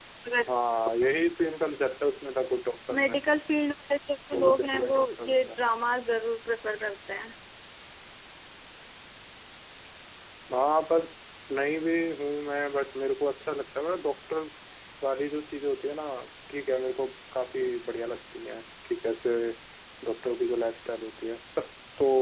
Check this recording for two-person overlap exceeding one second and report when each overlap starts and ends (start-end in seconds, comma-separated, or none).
4.3-5.6